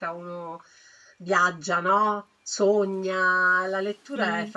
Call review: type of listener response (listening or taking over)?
listening